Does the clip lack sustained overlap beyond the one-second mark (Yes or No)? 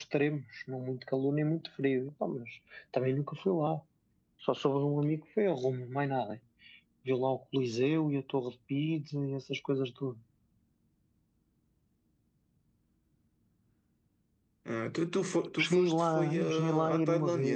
No